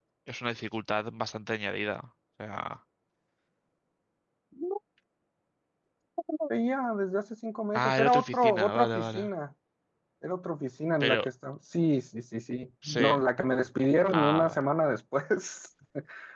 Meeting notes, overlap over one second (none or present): present